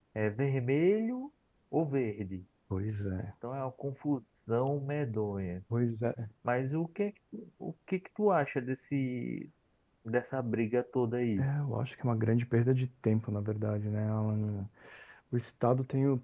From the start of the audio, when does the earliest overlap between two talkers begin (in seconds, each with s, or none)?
none